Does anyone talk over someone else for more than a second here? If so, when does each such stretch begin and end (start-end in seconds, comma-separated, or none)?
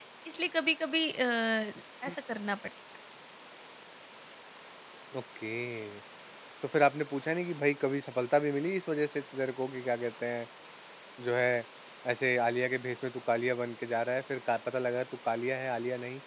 none